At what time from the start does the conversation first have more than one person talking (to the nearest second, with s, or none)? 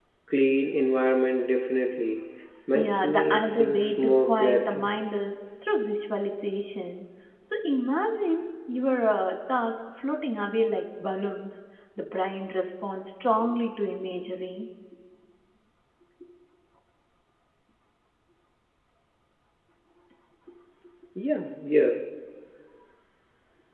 3 s